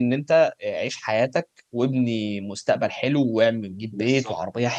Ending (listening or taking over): listening